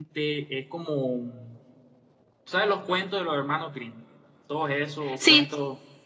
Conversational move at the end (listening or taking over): listening